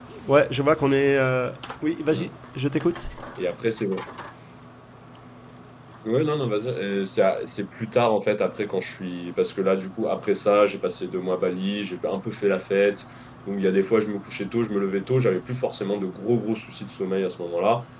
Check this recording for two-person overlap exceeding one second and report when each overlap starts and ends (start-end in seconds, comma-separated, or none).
none